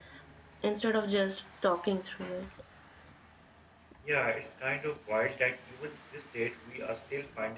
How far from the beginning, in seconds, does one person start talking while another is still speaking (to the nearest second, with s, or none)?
none